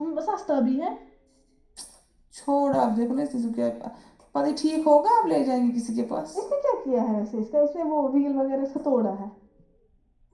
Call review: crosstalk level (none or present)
none